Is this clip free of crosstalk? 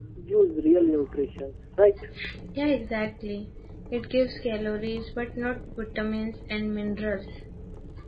Yes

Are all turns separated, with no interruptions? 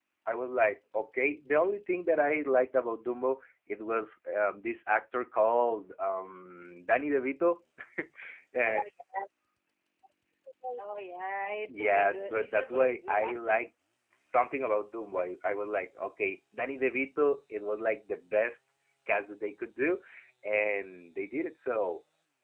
No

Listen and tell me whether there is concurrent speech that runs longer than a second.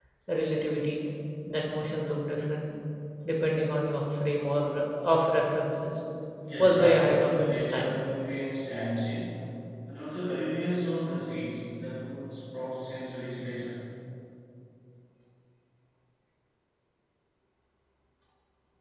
Yes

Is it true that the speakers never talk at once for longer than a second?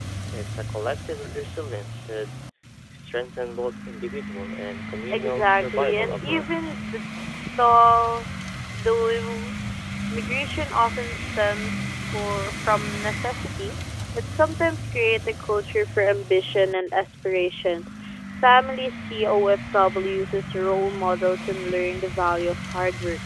No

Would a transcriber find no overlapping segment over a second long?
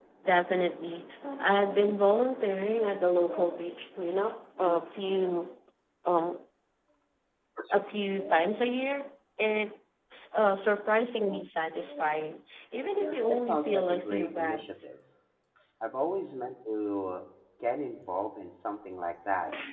No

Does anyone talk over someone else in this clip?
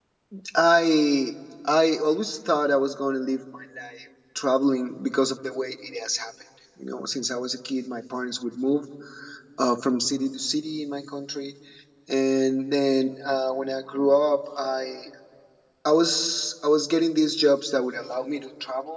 No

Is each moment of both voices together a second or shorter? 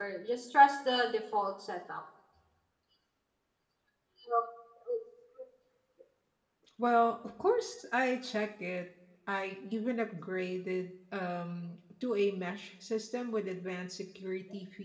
Yes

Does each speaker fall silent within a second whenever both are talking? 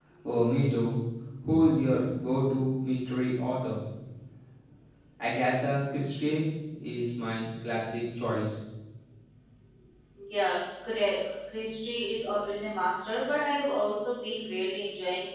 Yes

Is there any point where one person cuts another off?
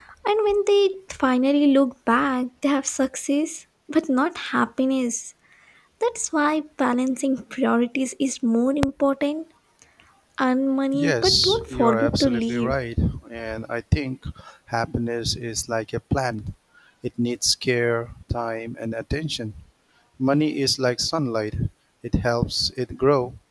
Yes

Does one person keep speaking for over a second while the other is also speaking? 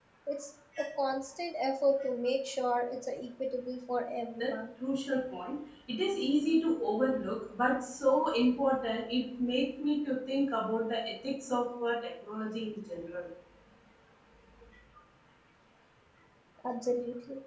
No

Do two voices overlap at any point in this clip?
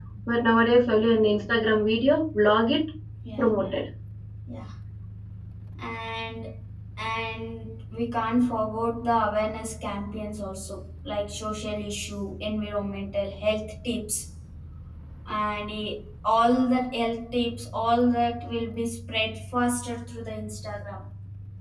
No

